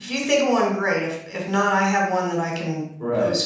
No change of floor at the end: No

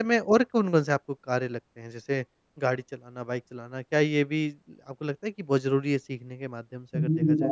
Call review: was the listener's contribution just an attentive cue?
No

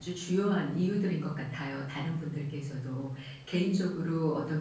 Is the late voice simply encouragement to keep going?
Yes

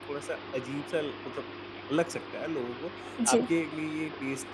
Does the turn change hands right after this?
No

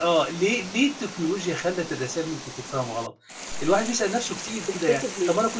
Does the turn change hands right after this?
No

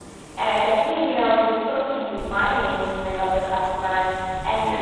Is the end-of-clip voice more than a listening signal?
No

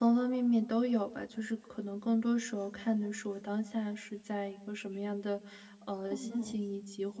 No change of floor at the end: Yes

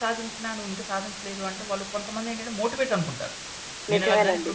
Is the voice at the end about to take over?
No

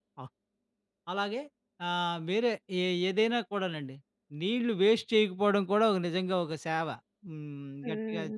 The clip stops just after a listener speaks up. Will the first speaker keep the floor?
No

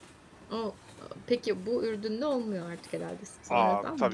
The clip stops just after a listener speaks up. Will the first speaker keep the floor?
No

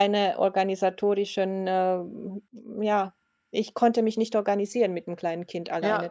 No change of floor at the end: No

